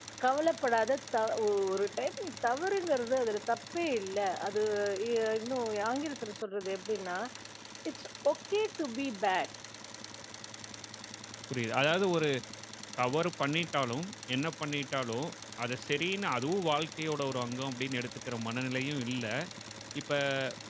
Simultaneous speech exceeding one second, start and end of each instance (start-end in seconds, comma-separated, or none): none